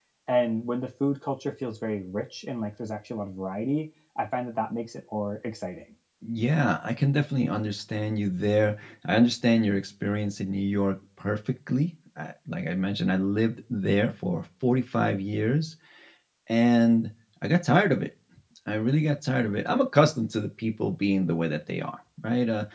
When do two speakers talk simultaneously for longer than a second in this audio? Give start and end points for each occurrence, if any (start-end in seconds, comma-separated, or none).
none